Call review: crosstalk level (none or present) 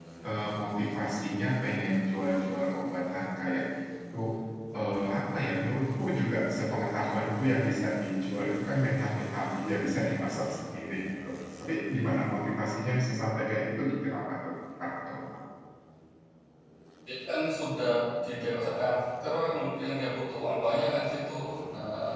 none